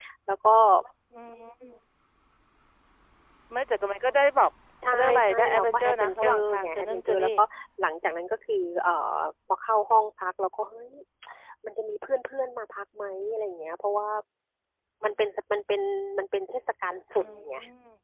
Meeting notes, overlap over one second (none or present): present